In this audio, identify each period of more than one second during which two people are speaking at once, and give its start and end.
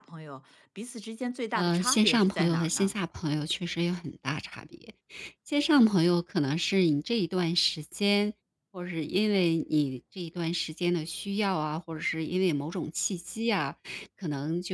1.6-2.9

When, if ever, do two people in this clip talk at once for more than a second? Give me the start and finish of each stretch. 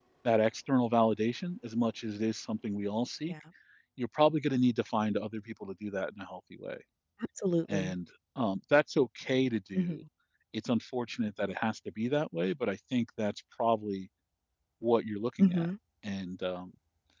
none

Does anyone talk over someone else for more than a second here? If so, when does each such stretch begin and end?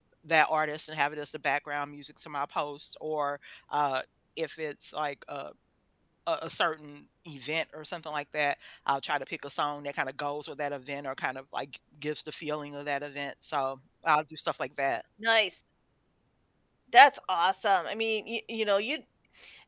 none

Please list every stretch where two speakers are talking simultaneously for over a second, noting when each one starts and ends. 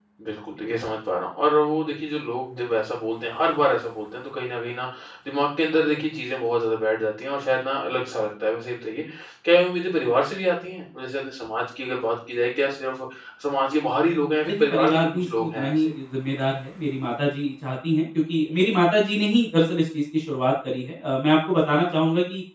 14.5-15.7

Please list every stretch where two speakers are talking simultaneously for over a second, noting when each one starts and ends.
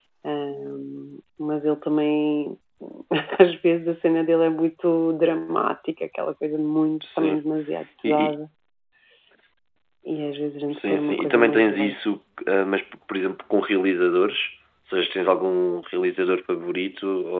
10.7-11.9

